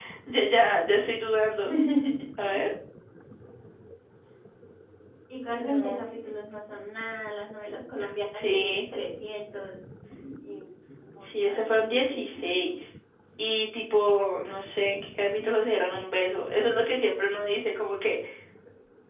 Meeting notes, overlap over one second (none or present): present